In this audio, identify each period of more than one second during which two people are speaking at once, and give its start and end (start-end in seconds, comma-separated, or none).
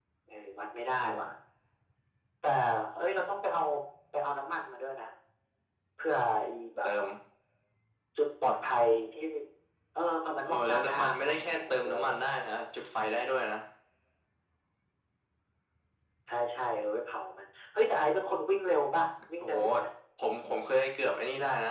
10.4-12.2